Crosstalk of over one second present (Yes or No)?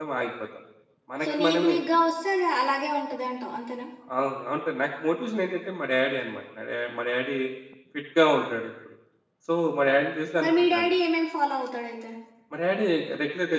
No